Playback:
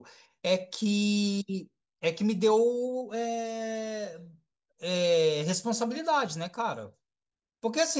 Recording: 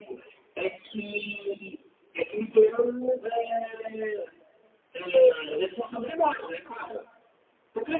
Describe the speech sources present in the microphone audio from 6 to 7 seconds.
echo only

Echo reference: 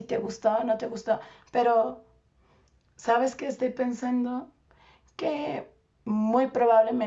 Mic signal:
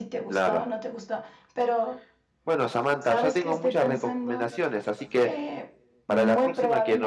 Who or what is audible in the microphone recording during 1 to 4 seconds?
both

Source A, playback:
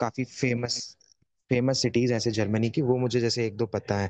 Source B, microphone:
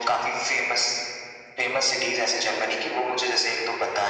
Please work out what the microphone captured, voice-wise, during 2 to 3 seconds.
echo only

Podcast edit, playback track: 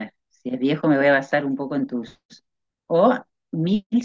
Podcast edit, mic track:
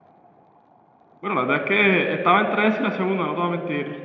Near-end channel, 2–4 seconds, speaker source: user only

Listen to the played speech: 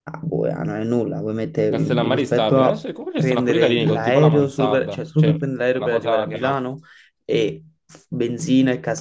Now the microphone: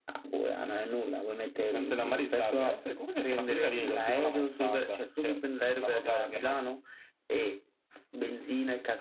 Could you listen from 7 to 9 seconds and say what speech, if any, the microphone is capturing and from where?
echo only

